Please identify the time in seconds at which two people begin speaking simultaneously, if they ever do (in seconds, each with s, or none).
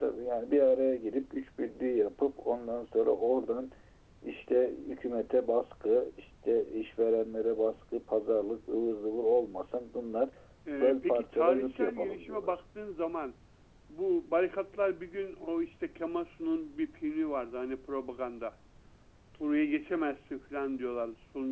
10.8 s